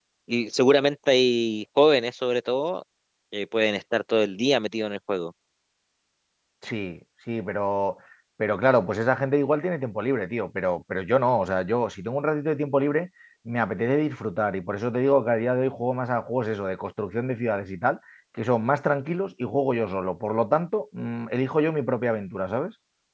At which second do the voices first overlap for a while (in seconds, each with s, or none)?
none